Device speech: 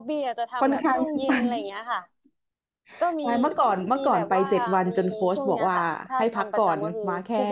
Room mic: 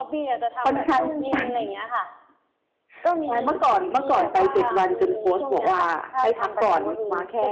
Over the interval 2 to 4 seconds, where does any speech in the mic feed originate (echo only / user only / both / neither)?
echo only